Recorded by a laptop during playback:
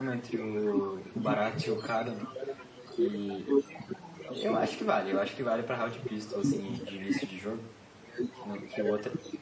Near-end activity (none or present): present